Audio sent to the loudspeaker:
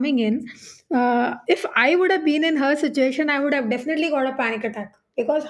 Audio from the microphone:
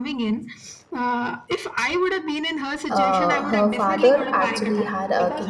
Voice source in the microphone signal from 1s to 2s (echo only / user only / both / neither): echo only